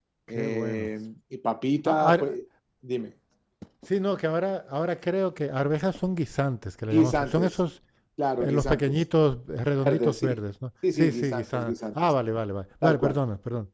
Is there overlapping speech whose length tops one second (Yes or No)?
Yes